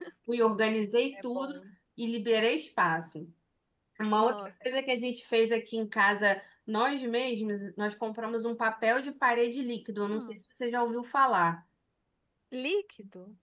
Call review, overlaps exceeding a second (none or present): none